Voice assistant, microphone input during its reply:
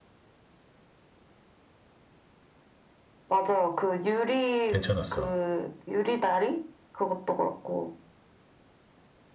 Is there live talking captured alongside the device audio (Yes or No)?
Yes